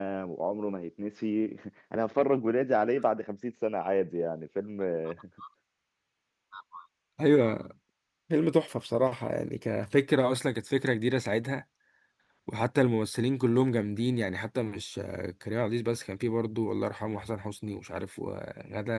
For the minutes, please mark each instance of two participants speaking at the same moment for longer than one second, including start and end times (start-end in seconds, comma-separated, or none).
none